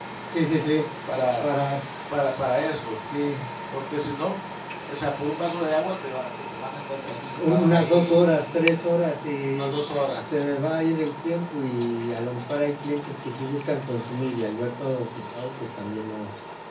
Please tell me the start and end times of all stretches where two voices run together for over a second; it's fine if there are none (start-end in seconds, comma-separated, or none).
7.0-8.5